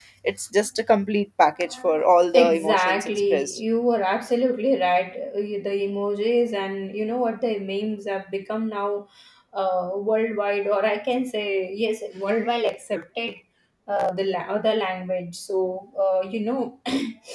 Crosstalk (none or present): present